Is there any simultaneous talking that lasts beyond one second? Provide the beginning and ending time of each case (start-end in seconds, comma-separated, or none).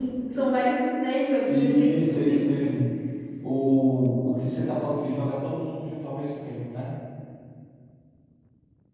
1.5-2.8